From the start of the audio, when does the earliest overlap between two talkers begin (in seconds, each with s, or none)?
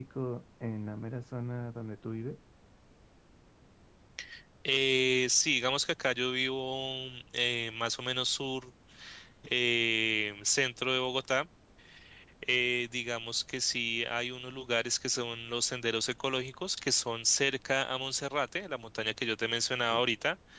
none